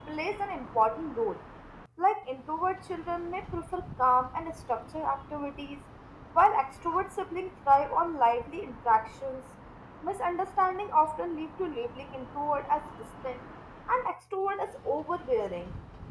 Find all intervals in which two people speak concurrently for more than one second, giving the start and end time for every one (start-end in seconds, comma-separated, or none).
none